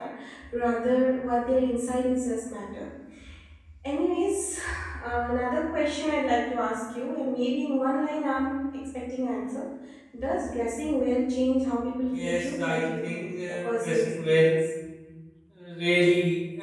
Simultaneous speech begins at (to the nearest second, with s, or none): 12 s